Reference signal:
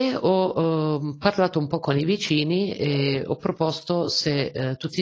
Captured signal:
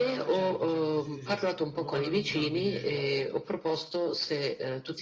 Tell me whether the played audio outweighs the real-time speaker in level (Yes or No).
Yes